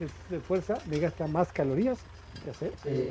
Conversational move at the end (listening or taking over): taking over